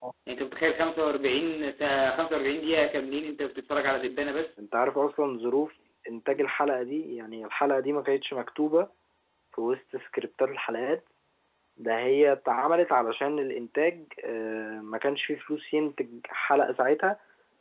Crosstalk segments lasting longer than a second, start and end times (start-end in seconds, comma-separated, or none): none